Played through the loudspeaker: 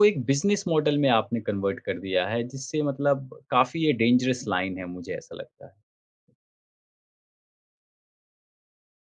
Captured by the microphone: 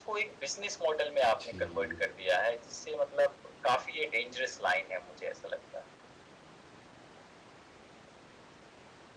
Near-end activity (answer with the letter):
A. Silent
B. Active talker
B